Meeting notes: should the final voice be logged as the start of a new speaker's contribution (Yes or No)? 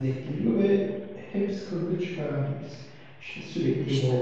No